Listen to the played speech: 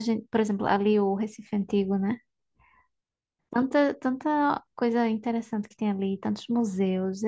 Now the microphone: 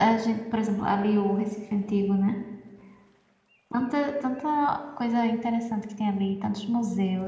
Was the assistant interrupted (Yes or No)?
No